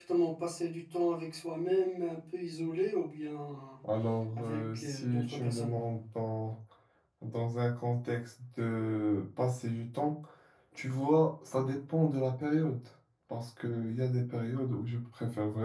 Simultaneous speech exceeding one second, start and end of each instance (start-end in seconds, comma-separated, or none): 4.4-5.7